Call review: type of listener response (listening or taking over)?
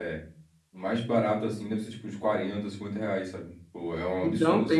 taking over